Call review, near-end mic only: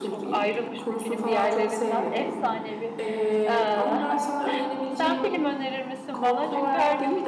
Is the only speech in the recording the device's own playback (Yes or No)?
No